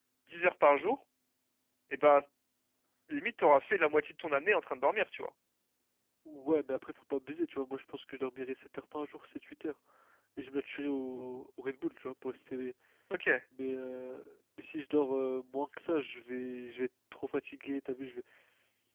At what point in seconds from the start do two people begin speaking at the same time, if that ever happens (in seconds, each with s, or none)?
none